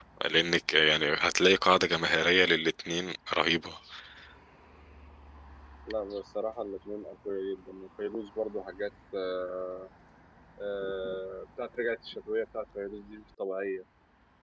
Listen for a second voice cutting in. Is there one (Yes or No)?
No